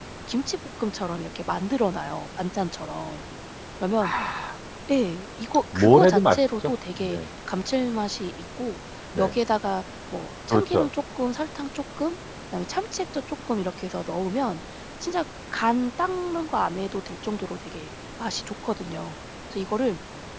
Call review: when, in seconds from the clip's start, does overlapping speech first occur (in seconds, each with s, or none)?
5.8 s